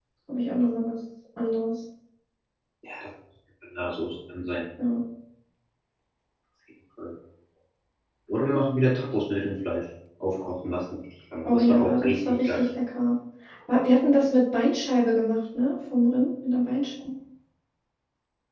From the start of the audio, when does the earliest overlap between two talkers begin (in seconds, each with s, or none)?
11.4 s